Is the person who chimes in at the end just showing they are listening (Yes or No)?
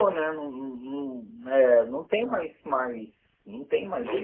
No